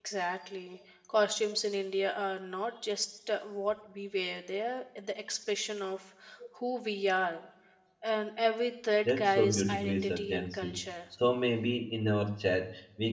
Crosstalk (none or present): present